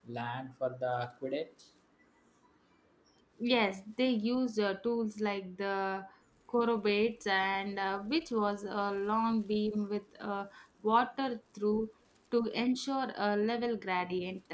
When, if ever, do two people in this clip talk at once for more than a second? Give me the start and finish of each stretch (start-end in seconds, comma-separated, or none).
none